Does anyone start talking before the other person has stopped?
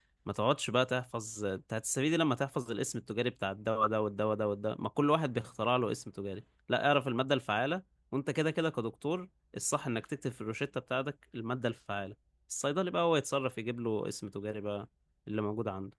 No

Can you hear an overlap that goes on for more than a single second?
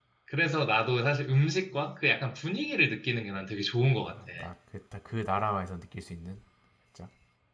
No

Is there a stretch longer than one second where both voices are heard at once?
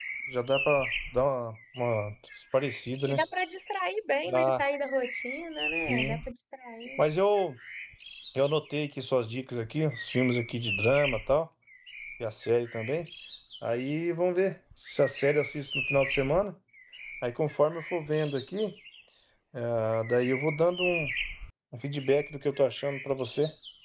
No

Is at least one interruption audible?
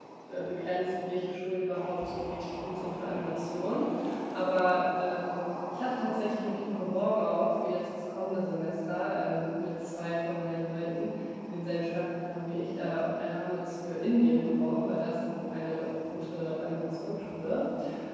No

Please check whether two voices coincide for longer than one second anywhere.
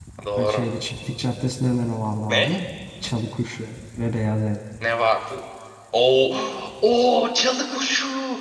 No

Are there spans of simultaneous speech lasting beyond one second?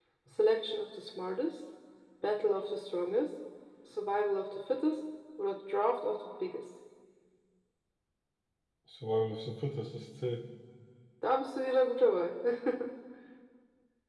No

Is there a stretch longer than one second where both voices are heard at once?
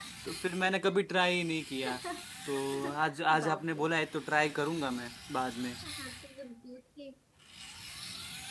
No

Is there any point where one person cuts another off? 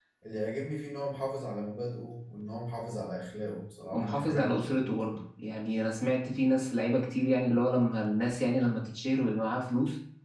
Yes, from 3.9 s

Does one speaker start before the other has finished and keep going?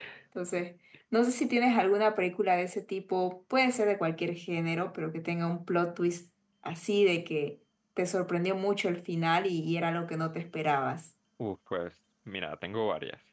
No

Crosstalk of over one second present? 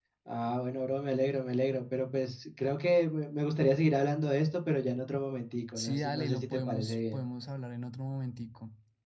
Yes, from 5.8 s

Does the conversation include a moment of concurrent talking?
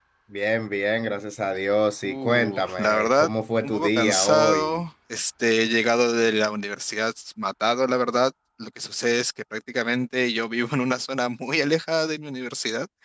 Yes, from 2.0 s

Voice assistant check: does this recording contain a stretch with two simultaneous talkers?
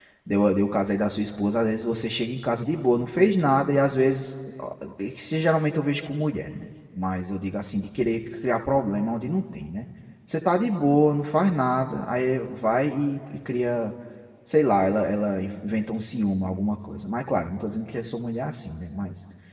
No

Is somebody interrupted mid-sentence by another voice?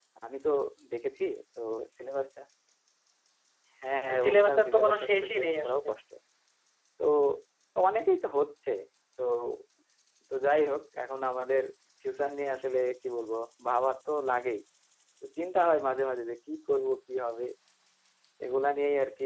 Yes, from 4.2 s

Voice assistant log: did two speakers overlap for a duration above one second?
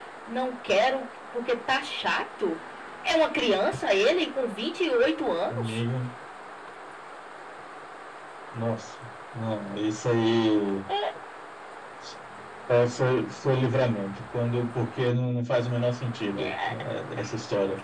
No

